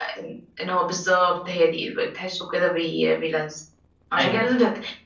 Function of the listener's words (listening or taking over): listening